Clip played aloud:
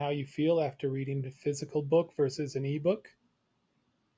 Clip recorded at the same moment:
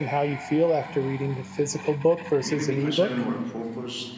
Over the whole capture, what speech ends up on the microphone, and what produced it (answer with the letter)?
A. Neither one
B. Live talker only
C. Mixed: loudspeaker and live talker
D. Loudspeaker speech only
C